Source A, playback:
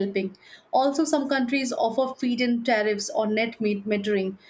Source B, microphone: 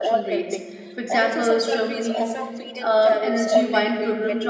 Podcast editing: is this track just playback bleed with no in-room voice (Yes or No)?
No